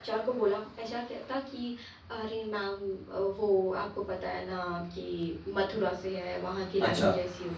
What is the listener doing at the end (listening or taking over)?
listening